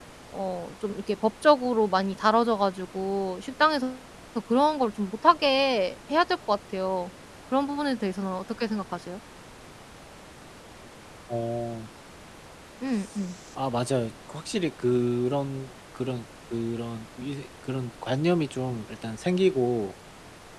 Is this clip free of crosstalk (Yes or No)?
Yes